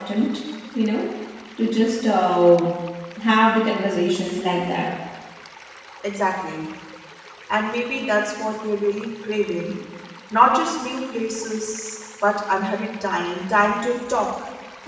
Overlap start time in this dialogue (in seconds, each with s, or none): none